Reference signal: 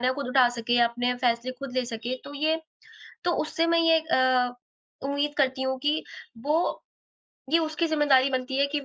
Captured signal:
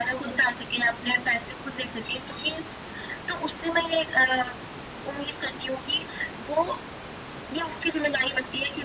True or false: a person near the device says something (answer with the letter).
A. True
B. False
B